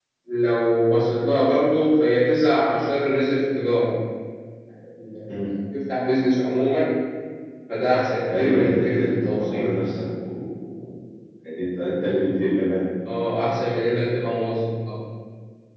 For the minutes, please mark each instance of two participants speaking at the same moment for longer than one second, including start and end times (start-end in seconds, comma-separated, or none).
8.3-9.7